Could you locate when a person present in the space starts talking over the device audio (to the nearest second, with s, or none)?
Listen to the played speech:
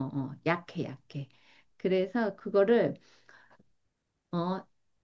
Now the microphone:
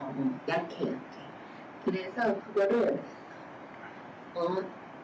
none